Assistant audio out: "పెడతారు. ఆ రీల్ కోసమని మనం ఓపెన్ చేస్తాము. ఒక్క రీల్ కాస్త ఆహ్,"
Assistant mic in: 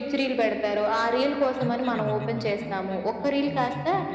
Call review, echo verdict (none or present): present